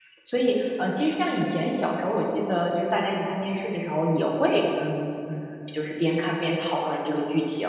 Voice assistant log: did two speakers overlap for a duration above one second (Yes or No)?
No